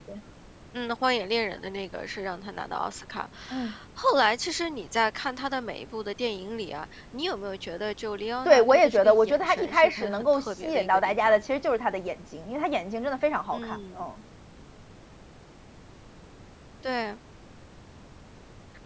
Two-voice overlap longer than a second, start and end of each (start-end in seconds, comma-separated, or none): 8.4-11.4